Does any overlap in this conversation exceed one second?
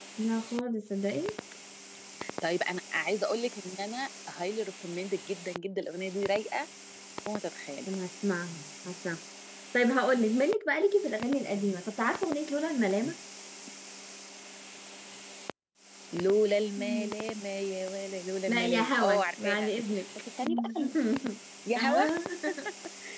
Yes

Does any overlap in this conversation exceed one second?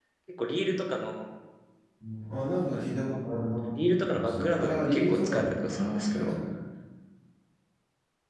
Yes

